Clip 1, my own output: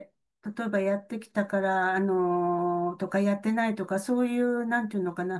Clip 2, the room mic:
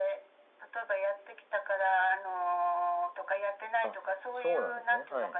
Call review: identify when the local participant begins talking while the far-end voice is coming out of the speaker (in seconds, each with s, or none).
3.8 s